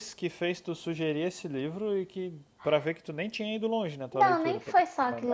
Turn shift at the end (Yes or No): Yes